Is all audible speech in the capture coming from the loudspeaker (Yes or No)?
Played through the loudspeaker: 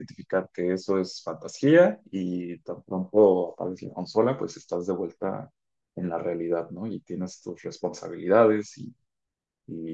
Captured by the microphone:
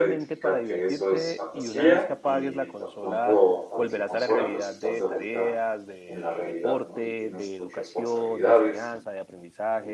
No